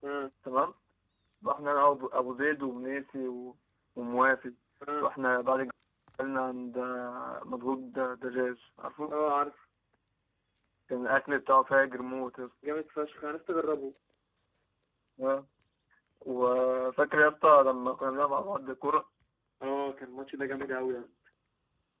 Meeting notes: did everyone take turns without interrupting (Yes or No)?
Yes